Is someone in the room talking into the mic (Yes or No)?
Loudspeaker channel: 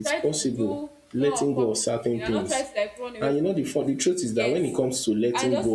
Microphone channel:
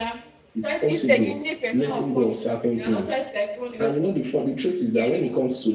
Yes